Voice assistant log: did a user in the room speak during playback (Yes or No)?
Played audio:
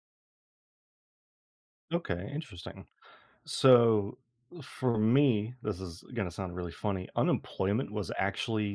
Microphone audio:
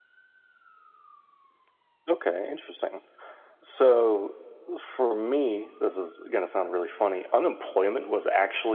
No